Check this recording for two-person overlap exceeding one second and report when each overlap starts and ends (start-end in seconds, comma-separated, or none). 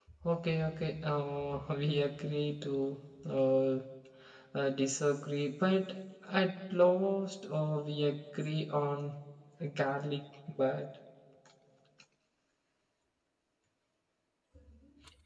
none